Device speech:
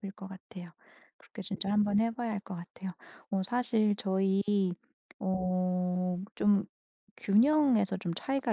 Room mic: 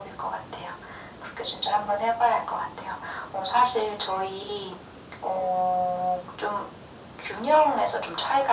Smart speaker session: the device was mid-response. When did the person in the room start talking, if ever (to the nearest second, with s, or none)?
none